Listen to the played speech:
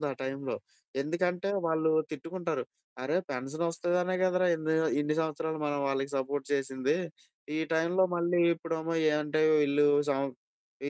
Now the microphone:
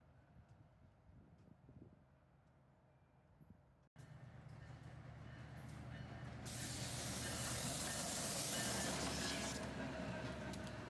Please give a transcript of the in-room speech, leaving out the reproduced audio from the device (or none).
none